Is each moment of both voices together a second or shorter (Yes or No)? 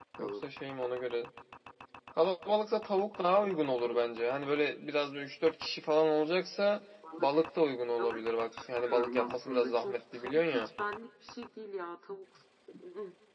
No